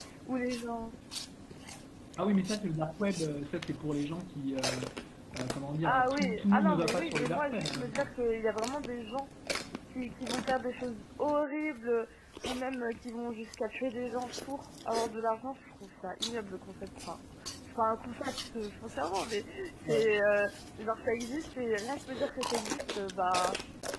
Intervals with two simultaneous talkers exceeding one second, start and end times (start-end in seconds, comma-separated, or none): 5.8-8.1